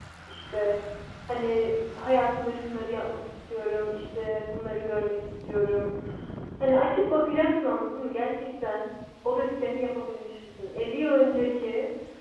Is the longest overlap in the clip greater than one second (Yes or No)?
No